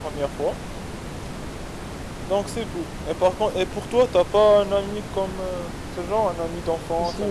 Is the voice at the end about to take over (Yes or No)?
Yes